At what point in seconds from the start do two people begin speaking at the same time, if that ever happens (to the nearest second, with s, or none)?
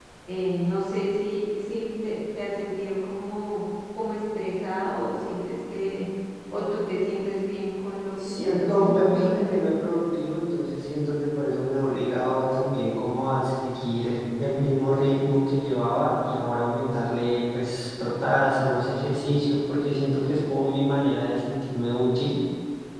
8 s